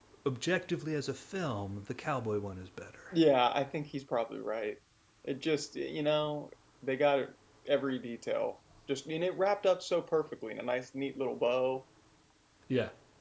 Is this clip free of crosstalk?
Yes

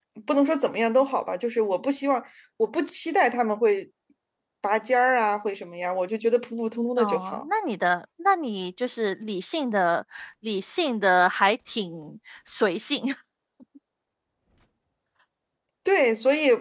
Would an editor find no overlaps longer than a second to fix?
Yes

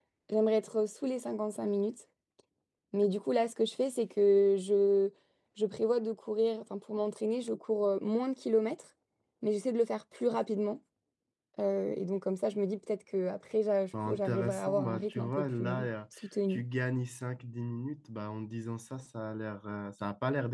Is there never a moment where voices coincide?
No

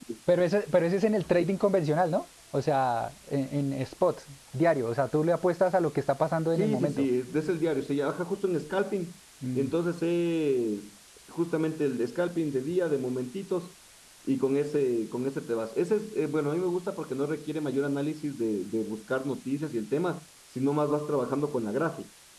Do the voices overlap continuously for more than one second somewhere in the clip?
No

